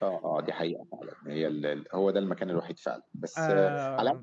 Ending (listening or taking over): listening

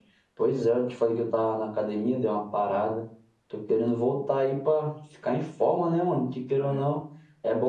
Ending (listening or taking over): listening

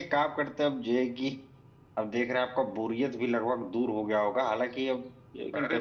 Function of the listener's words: listening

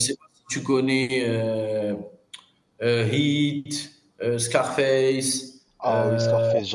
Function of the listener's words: taking over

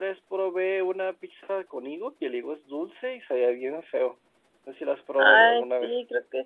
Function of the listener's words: taking over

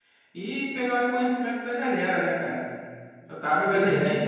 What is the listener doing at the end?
listening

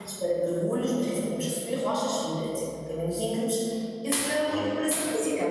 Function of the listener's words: listening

